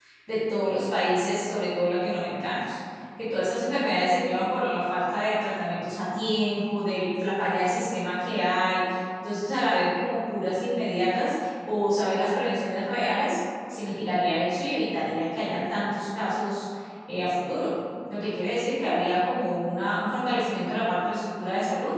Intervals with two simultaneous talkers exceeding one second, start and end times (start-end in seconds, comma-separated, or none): none